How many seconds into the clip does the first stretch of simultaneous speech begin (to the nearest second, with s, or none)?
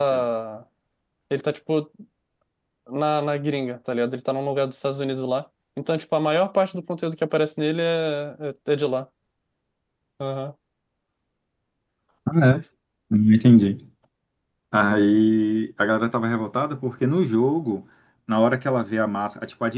none